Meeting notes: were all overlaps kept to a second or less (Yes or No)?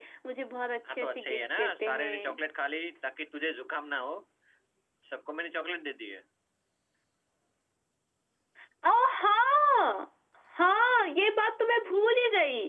No